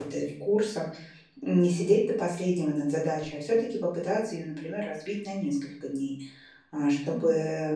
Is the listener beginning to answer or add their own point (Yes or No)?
No